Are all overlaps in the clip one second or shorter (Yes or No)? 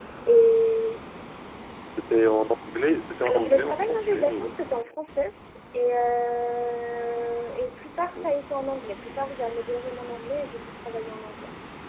No